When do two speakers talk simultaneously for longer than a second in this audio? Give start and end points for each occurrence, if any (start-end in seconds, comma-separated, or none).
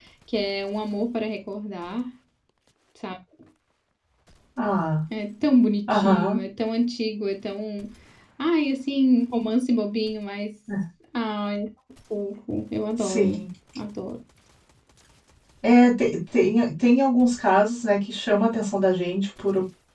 none